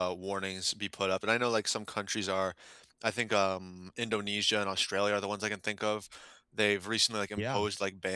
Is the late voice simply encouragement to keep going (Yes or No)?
Yes